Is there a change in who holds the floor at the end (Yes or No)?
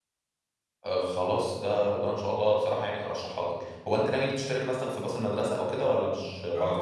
Yes